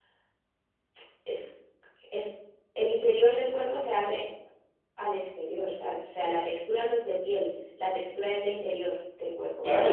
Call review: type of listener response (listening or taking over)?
taking over